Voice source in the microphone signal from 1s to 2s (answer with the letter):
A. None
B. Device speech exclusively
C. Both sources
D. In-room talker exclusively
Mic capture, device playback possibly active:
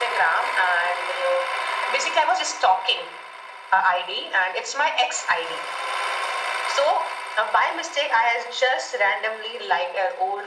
B